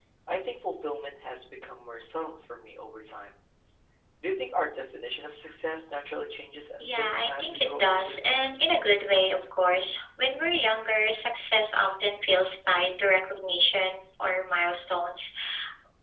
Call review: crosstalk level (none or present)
present